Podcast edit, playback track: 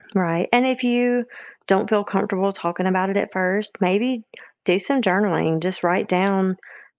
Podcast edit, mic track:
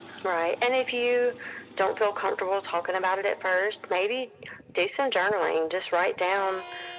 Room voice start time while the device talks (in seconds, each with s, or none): none